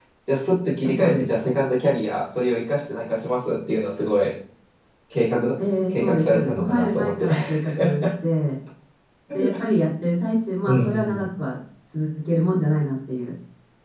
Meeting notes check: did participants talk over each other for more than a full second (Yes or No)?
Yes